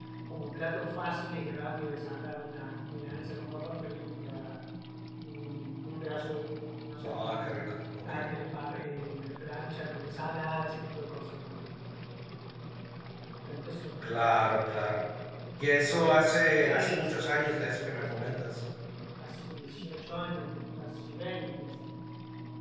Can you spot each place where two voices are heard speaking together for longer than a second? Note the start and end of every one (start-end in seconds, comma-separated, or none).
16.6-18.3